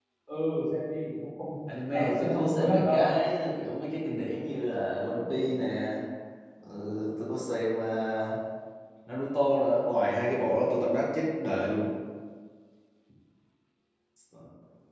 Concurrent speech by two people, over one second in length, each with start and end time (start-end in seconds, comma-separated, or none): 1.9-3.1